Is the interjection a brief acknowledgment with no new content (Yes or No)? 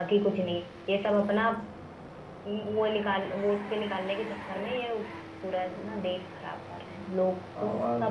No